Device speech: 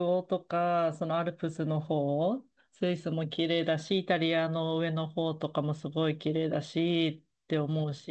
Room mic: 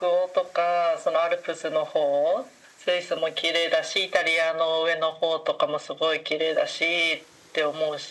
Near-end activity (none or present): none